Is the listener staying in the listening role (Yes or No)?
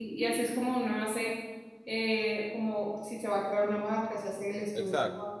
Yes